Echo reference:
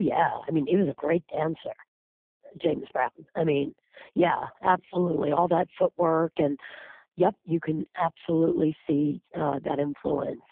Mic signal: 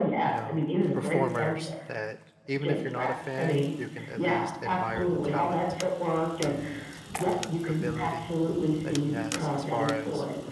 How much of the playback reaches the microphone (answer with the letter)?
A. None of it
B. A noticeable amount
B